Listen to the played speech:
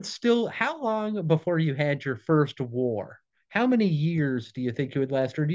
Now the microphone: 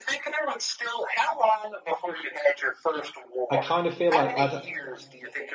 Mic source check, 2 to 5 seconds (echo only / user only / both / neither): both